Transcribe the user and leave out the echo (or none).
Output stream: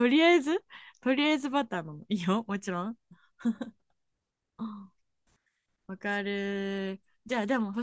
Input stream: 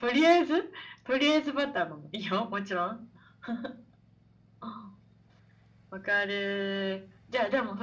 none